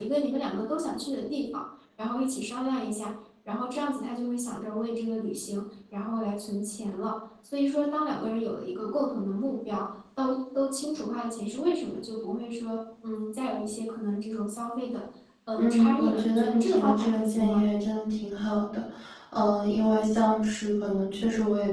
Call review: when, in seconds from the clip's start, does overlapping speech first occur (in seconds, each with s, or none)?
15.6 s